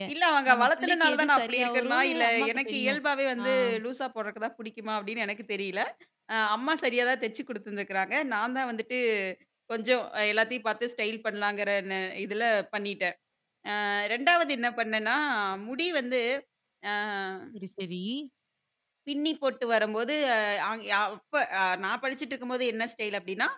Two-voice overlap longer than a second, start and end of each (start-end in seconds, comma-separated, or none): 0.5-3.0